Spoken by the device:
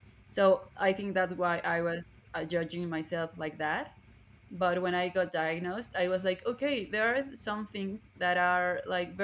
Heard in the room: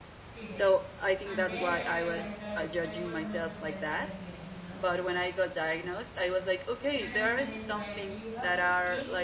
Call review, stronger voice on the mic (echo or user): echo